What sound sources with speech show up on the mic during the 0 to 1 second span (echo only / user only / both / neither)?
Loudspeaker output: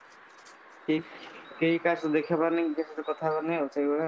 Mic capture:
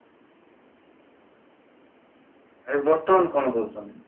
neither